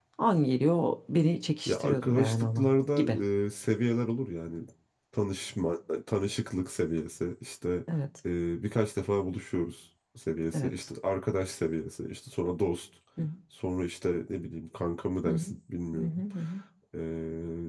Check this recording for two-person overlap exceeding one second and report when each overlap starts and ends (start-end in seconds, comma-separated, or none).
1.7-3.2